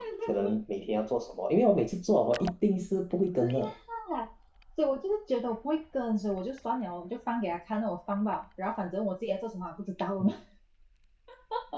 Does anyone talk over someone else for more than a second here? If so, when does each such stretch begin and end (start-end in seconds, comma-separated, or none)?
none